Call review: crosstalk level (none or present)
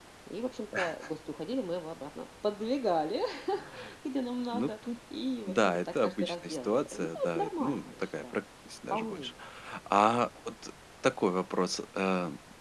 present